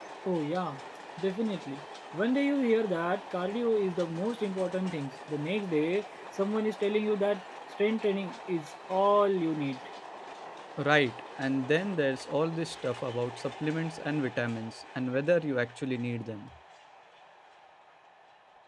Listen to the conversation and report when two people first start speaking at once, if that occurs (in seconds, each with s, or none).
none